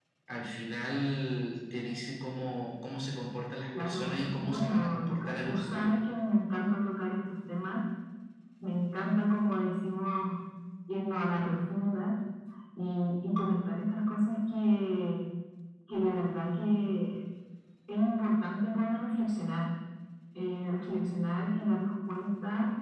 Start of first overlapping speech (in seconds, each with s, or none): 3.7 s